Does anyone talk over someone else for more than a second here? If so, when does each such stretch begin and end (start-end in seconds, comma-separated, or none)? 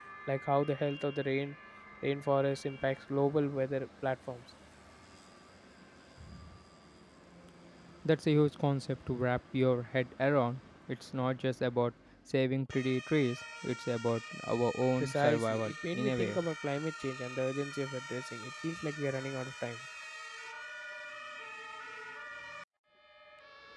15.0-16.4